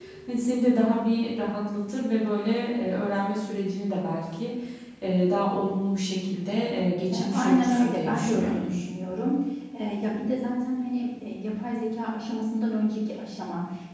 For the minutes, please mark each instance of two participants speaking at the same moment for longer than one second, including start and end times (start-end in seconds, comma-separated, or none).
7.1-8.6